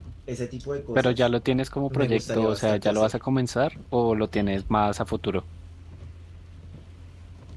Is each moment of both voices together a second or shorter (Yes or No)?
No